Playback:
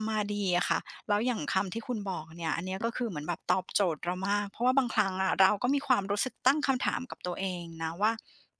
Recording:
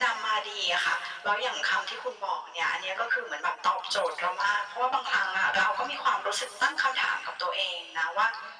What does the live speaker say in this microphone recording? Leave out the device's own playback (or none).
none